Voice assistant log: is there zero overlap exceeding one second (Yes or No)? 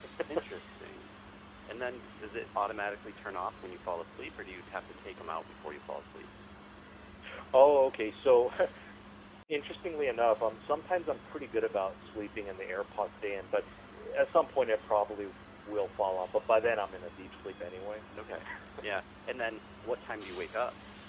Yes